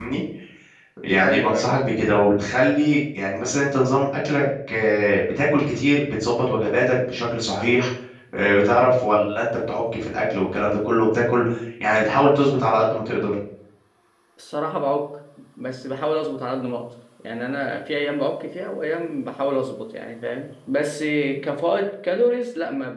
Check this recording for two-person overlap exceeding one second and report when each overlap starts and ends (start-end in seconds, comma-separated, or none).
none